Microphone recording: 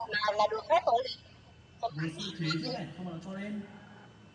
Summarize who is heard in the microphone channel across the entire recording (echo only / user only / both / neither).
both